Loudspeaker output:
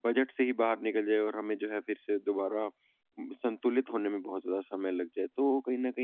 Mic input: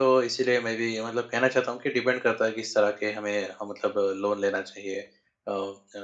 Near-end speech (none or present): present